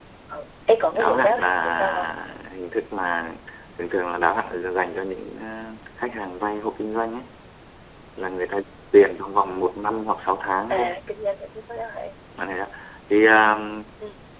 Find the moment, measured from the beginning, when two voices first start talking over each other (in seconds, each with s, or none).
0.9 s